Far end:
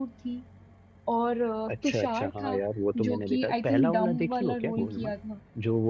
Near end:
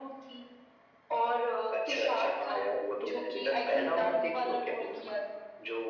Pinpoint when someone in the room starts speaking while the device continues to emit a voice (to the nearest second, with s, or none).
none